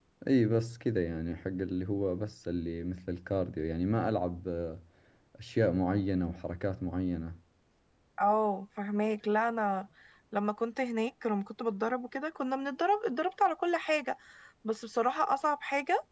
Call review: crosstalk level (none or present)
none